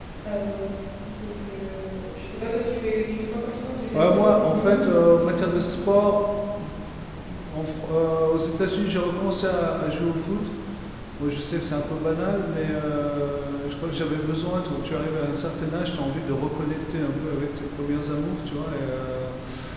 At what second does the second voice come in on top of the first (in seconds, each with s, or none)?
3.9 s